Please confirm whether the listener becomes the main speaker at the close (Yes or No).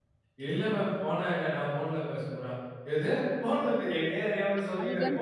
No